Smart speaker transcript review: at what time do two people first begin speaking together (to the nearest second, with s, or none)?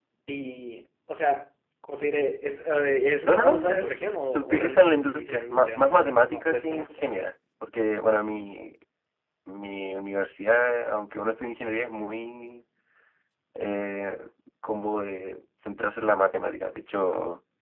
3 s